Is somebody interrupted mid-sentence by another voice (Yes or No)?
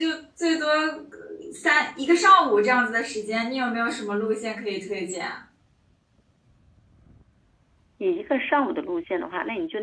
No